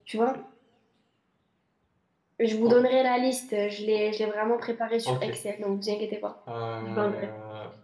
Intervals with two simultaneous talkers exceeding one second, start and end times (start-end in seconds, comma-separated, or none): none